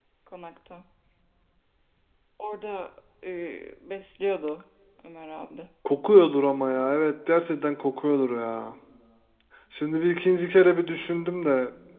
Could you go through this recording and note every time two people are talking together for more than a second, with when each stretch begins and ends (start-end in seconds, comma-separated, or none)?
none